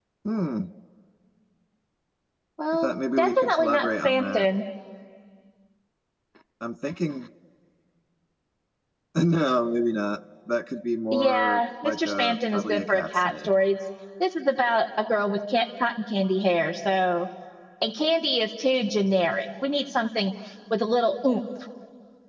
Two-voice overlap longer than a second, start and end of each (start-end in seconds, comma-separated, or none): 2.7-4.5, 11.1-13.5